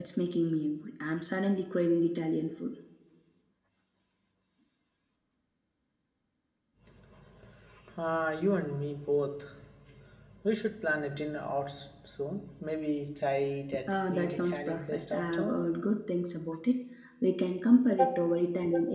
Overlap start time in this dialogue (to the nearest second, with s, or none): 14 s